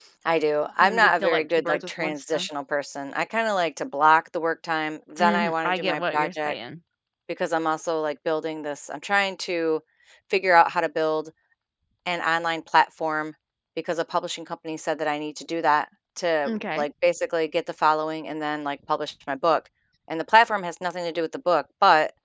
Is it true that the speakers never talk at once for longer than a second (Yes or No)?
No